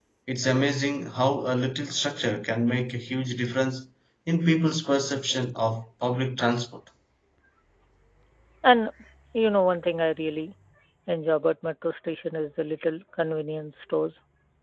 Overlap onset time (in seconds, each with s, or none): none